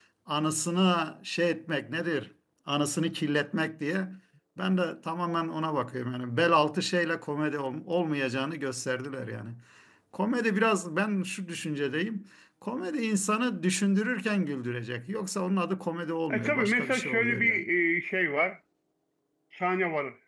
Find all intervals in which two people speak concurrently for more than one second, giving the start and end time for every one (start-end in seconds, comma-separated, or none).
16.3-17.6